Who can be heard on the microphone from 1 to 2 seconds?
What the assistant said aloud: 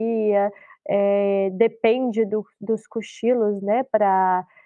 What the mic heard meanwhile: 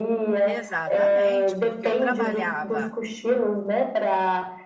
both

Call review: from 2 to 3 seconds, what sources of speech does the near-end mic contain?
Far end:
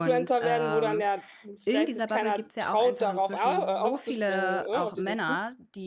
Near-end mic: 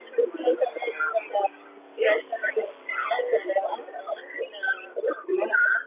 echo only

